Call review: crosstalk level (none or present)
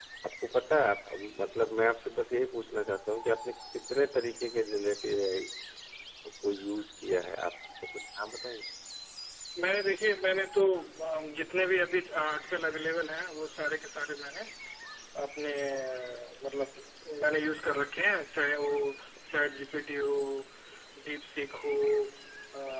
none